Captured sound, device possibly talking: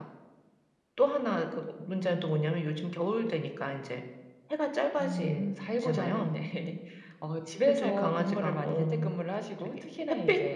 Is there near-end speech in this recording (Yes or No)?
No